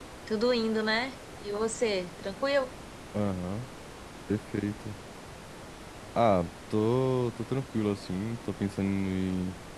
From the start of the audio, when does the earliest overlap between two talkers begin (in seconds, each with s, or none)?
none